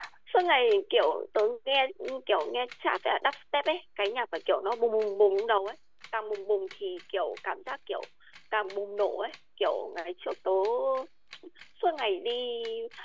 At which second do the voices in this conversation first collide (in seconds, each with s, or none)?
none